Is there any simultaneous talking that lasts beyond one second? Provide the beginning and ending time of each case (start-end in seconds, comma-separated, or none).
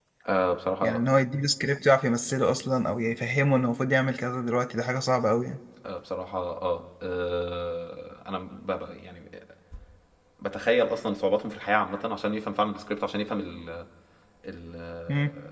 none